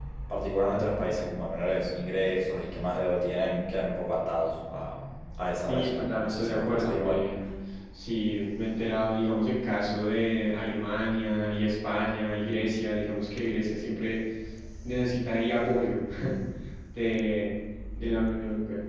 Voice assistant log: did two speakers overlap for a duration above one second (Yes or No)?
Yes